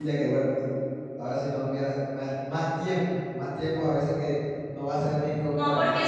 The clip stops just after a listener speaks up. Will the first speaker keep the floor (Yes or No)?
No